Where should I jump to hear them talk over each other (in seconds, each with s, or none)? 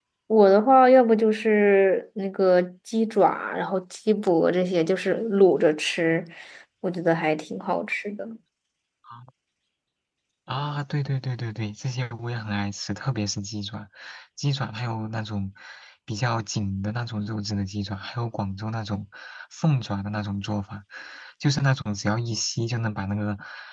none